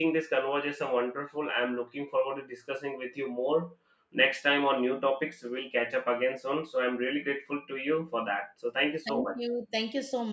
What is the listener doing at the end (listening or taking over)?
taking over